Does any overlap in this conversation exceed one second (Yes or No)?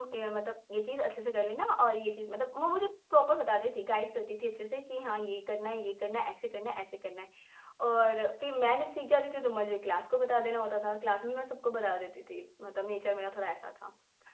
No